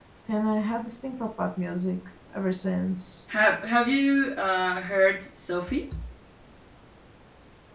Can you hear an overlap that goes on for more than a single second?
No

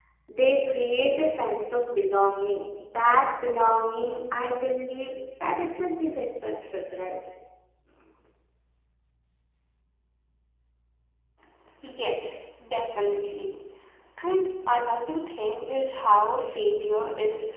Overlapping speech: No

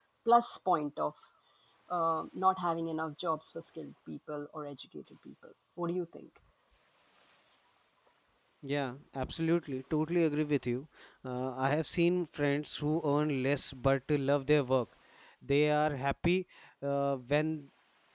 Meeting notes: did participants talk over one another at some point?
No

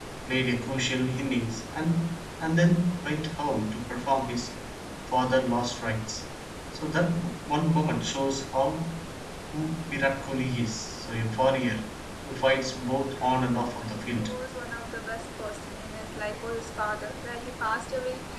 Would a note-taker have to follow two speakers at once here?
Yes, from 12.9 s

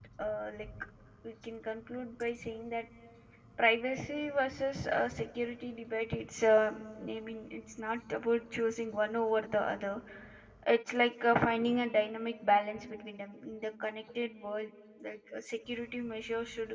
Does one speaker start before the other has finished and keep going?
No

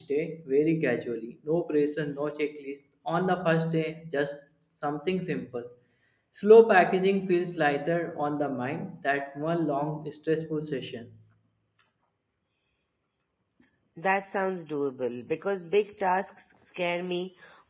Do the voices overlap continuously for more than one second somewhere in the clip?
No

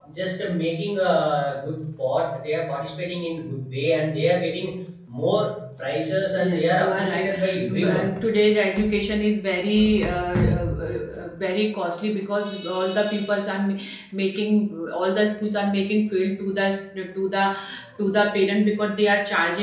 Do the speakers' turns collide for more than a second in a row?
Yes, from 6.4 s

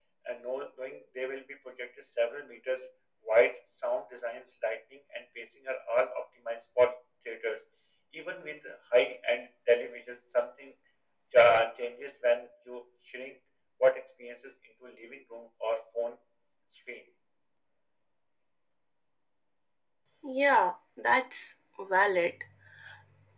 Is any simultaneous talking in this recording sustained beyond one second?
No

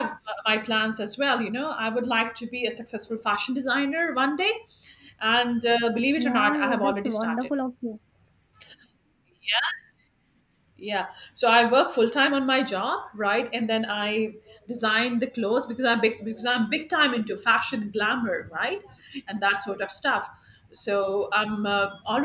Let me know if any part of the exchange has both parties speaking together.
Yes, from 6.2 s

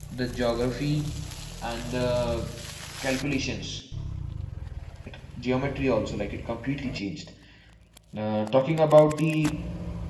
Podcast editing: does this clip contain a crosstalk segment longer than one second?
No

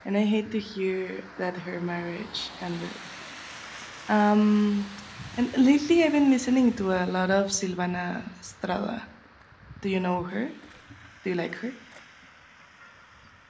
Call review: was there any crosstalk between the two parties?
No

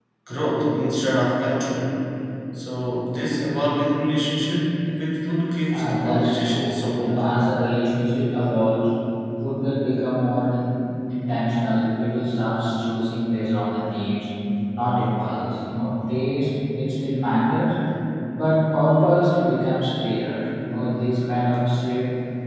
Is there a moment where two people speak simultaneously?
Yes, from 5.7 s

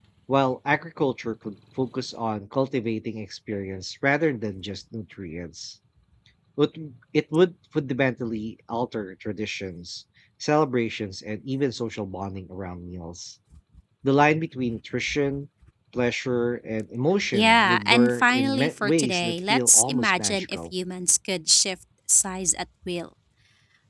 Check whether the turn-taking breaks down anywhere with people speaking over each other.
Yes, from 17.3 s

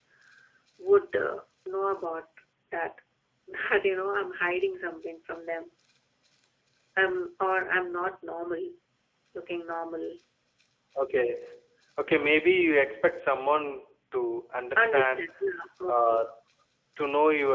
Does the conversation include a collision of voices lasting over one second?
No

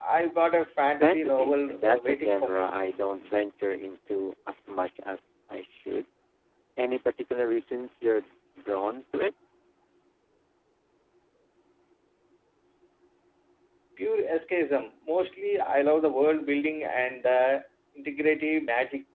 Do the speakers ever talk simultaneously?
Yes, from 1.0 s

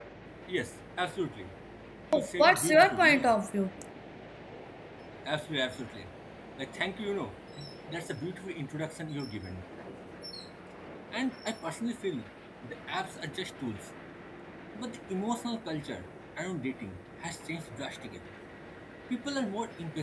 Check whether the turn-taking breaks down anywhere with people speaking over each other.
Yes, from 2.1 s

